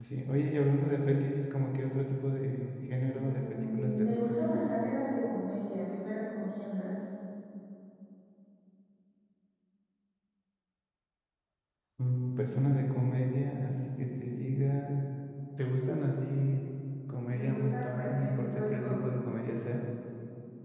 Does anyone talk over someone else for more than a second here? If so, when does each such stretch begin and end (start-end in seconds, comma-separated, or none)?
3.1-4.4, 17.3-19.2